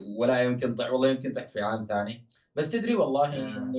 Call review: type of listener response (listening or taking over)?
listening